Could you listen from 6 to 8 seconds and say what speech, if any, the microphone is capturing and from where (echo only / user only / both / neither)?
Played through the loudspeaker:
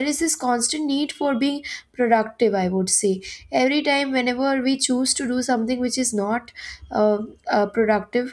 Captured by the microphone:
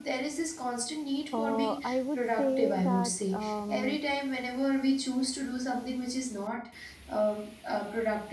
echo only